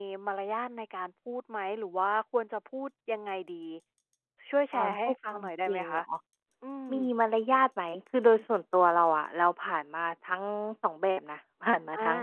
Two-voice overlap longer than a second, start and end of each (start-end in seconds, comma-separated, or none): 4.7-6.0